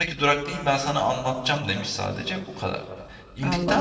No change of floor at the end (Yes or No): Yes